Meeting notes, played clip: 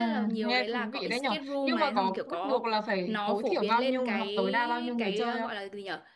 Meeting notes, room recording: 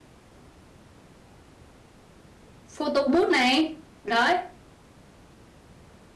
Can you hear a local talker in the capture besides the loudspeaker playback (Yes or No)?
Yes